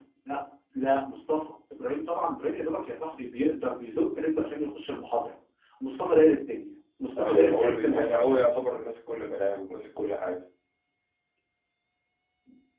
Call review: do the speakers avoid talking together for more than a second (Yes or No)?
No